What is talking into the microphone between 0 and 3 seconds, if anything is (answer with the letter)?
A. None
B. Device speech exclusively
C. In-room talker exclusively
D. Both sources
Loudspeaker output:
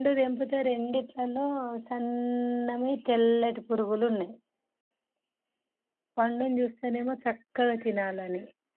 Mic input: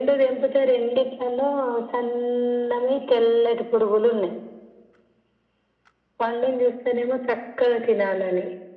B